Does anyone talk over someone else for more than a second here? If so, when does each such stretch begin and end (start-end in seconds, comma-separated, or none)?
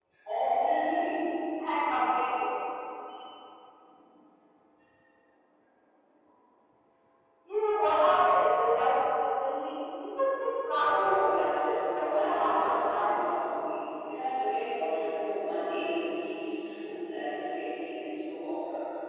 10.8-13.3